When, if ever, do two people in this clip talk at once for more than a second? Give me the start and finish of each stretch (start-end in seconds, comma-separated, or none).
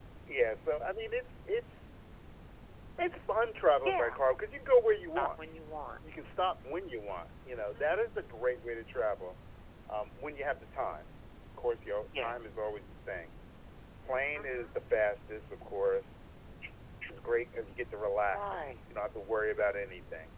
none